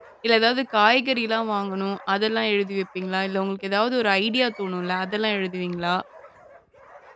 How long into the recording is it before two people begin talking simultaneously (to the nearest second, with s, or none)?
none